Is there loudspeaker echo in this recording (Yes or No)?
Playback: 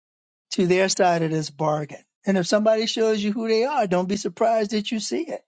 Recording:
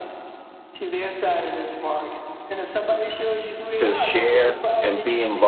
Yes